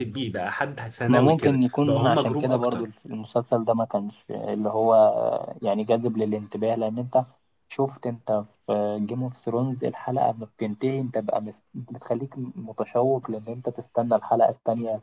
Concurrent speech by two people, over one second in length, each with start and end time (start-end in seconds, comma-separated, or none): 1.1-2.8